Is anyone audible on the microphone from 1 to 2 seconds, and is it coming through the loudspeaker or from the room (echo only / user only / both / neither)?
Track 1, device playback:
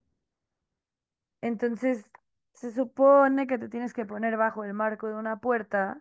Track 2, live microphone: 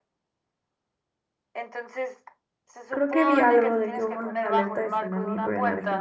echo only